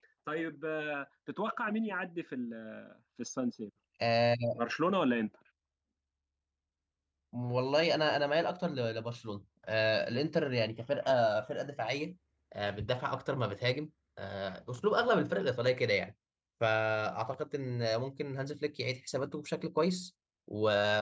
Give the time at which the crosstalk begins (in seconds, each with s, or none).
none